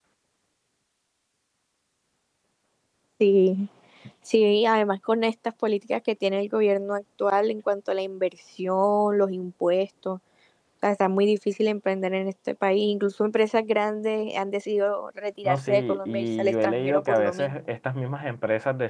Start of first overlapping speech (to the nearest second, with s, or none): 15 s